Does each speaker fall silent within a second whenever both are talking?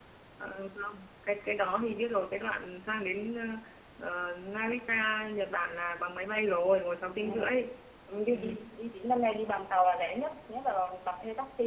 Yes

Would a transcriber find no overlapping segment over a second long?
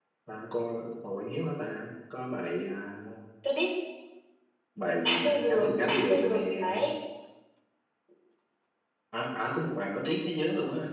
No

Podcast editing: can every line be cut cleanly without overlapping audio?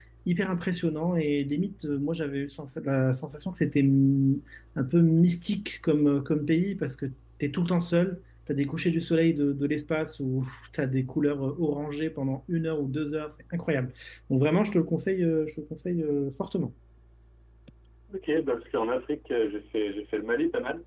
Yes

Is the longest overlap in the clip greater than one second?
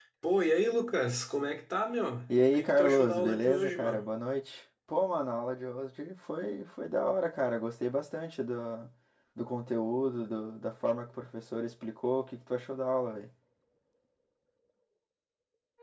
Yes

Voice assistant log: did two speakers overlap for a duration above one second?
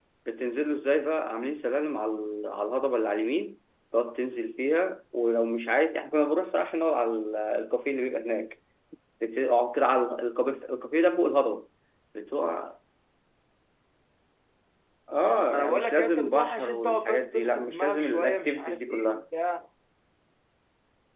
Yes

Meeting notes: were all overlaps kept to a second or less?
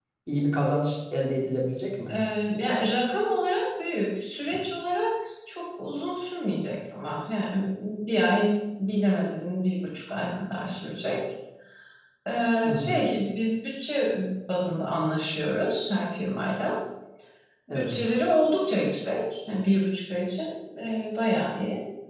Yes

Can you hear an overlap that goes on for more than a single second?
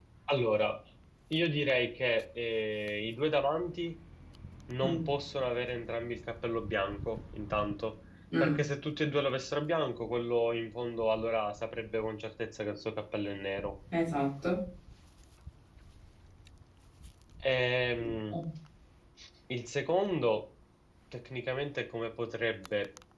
No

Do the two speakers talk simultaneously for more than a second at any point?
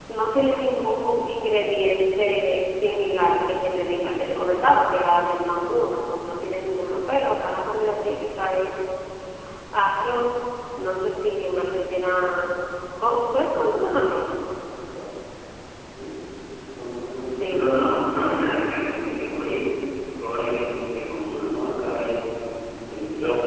No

